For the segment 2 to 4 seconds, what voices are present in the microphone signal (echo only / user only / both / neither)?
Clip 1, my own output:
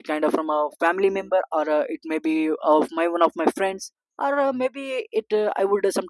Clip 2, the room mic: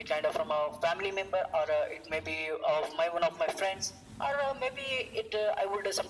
echo only